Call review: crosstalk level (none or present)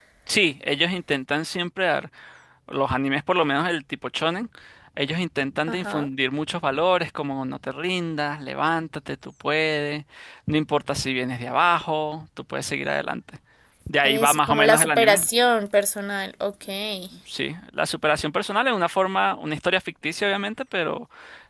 present